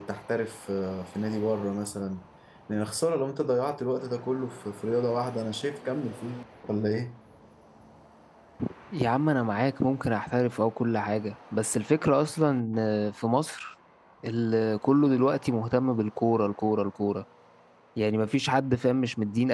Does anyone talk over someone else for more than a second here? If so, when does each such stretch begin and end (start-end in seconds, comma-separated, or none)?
none